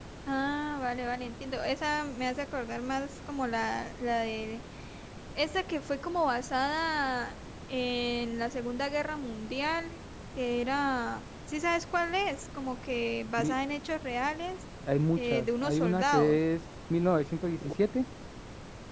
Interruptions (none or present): present